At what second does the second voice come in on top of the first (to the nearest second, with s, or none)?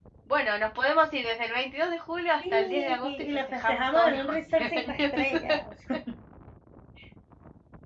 2 s